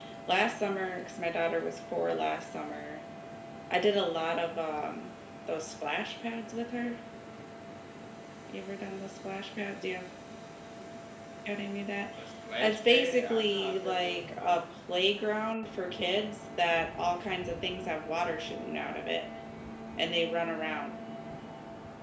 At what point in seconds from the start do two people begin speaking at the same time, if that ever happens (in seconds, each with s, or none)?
12.6 s